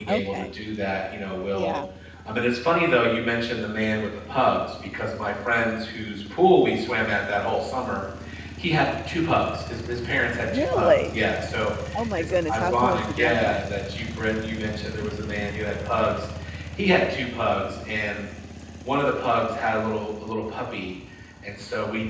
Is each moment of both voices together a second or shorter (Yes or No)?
No